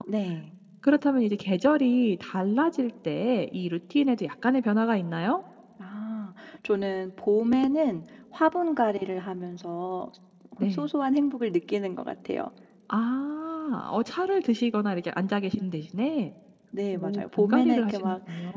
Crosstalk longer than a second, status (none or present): present